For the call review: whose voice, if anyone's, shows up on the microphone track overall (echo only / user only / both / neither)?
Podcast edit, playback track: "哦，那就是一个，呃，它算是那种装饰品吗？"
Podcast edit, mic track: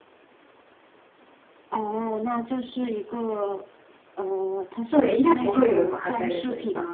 both